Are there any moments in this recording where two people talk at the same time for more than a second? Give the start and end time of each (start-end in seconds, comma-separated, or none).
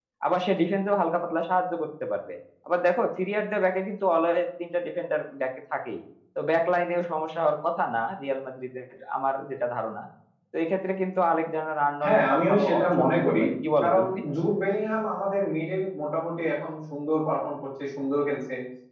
12.0-13.4